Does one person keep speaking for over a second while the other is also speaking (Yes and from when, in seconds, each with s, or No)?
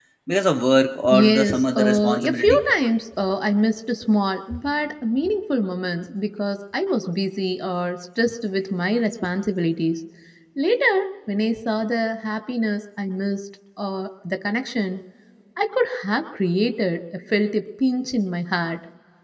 Yes, from 1.1 s